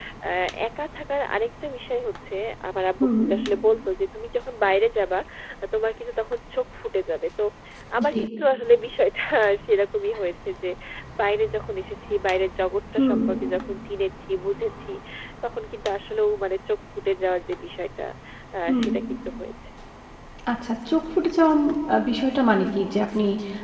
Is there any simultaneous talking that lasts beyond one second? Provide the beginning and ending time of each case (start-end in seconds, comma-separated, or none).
none